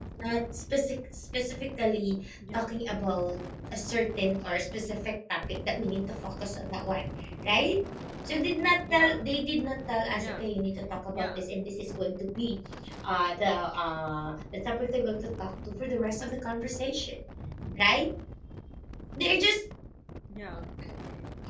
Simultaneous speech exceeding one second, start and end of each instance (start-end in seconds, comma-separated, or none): none